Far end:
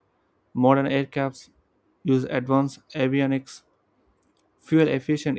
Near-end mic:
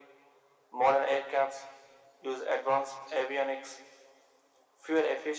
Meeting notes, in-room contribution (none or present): none